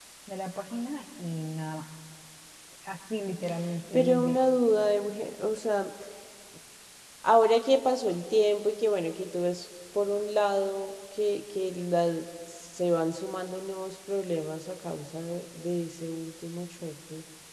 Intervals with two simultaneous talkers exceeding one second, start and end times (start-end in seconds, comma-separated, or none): none